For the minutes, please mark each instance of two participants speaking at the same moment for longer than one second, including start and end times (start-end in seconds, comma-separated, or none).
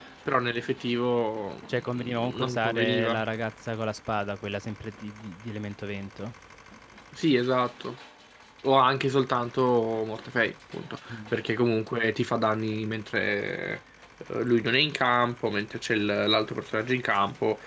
1.7-3.2